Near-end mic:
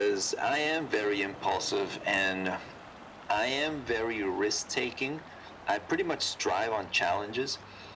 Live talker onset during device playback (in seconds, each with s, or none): none